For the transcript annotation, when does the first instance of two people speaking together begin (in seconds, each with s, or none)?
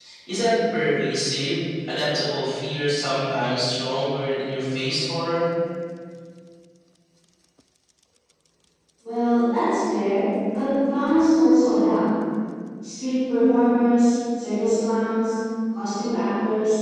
none